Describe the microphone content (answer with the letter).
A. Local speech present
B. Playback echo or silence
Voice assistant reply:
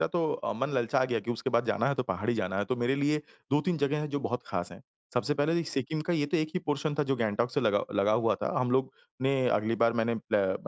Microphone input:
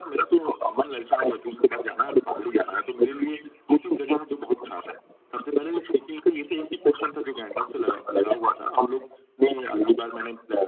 B